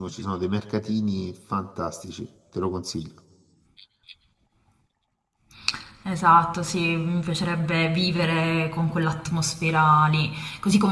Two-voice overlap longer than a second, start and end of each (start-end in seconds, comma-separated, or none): none